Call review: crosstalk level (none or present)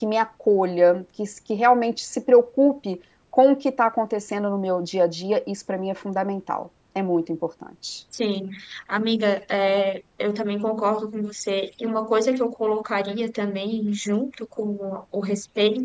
none